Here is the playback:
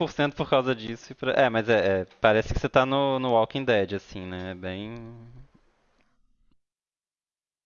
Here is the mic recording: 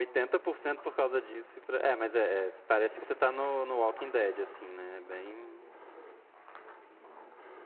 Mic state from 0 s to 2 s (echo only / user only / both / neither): echo only